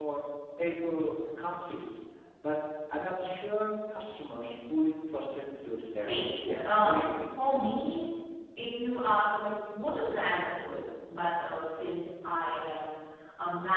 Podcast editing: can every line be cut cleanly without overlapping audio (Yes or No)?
No